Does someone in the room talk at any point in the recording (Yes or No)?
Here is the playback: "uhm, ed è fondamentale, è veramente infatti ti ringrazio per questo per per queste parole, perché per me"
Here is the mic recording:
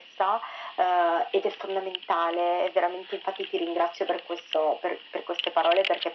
No